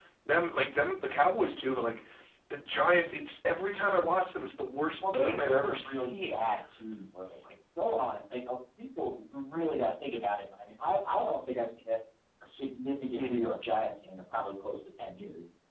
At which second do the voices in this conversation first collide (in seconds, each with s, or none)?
5.0 s